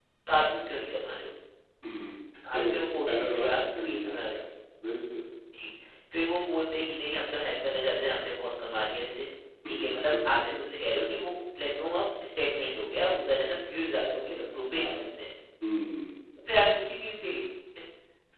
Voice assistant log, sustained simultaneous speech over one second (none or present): present